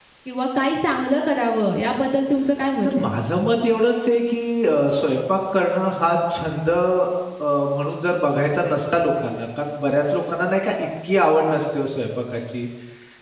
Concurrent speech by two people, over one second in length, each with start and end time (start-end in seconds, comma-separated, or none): none